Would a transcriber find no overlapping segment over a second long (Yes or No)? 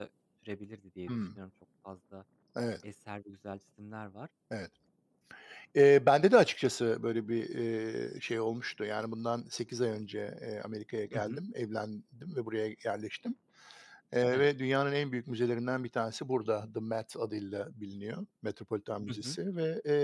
Yes